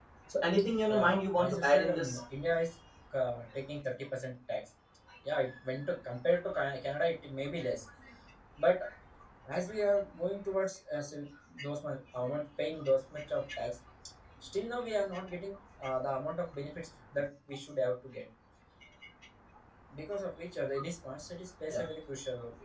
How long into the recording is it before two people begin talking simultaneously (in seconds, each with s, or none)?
0.9 s